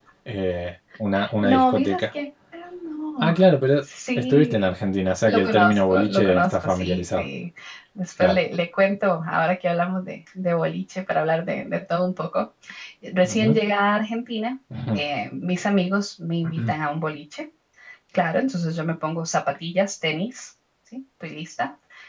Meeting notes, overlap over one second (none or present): present